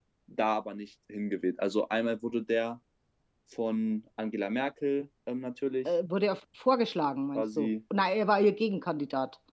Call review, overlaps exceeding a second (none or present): none